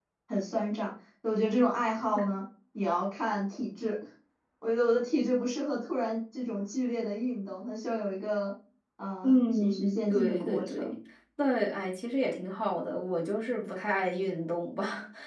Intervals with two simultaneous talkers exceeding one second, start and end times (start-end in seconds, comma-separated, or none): 9.2-10.9